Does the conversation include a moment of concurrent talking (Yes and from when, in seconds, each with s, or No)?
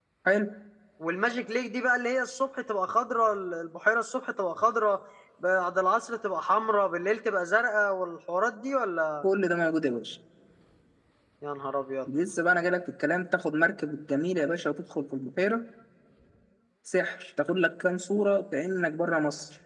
No